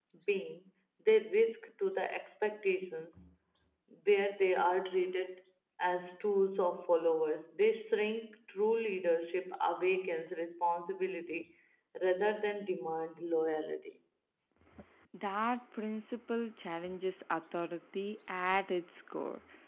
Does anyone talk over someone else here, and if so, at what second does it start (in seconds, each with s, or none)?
none